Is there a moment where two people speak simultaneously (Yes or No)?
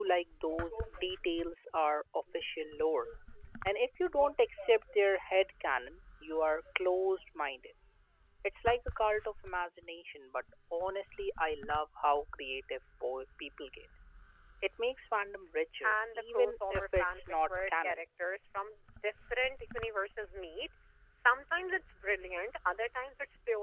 Yes